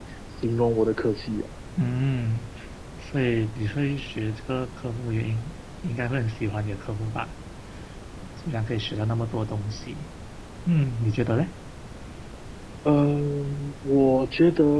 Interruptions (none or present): none